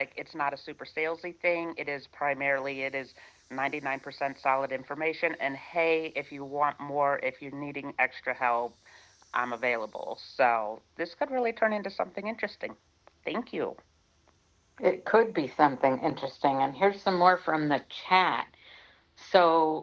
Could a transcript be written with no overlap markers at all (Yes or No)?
Yes